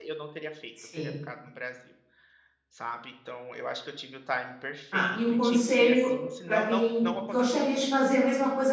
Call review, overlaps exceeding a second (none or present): present